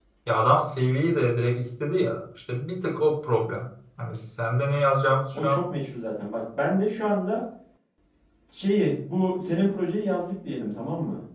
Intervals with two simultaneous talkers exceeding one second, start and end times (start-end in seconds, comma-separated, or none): none